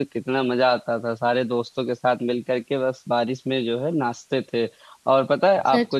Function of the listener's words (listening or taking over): listening